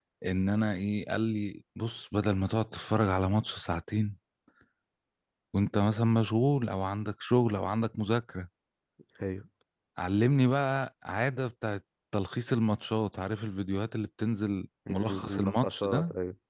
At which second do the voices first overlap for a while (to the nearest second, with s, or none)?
15 s